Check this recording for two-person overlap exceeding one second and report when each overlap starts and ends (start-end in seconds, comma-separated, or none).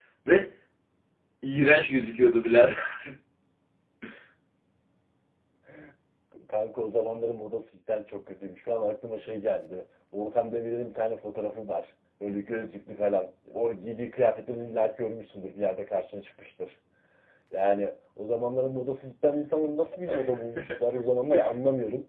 none